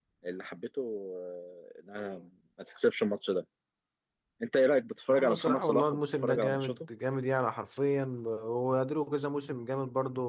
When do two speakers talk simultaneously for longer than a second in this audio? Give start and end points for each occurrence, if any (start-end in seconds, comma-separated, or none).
5.1-6.7